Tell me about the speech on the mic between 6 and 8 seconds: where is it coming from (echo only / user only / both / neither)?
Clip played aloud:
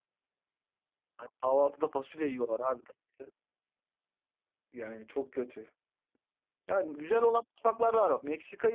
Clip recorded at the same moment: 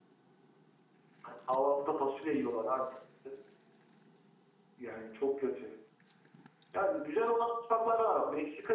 echo only